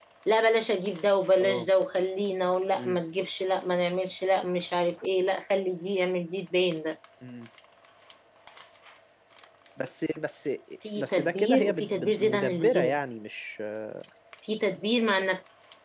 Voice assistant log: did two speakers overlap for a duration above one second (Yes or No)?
Yes